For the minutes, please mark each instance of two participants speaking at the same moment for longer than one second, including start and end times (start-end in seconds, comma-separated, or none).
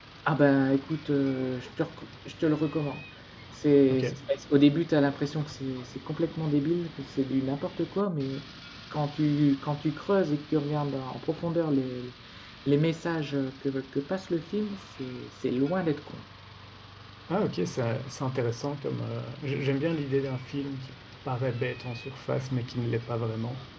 none